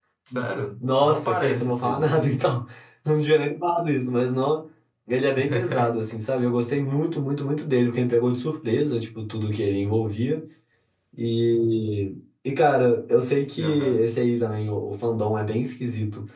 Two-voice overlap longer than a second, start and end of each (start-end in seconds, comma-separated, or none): 1.0-2.5